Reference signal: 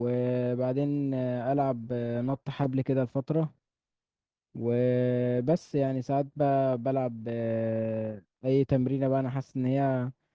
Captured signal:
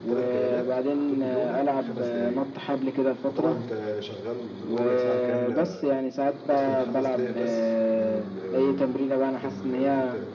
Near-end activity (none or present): present